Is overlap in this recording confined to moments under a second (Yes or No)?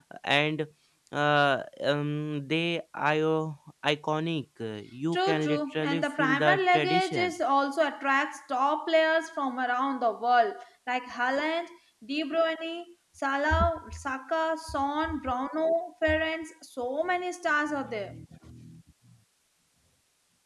No